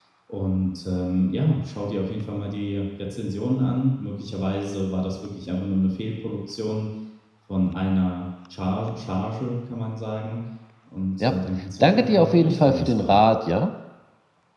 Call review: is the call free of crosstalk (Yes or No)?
No